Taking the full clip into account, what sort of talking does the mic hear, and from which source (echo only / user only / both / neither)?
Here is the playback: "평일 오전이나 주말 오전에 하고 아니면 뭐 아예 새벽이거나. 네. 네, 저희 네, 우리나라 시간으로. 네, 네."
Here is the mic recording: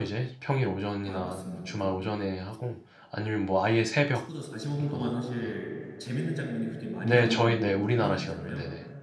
both